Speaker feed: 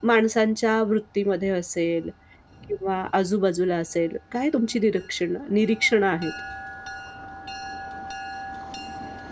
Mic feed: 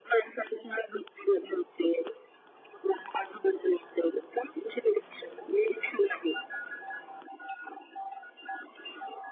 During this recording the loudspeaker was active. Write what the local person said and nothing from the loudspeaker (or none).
none